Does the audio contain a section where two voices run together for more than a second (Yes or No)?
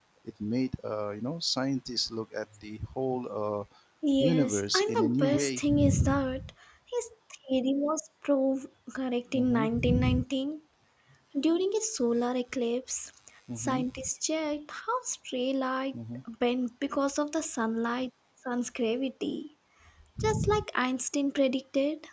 Yes